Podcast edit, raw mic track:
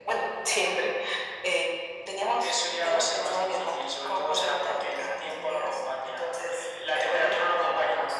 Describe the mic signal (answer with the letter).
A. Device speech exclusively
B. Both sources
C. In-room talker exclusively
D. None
A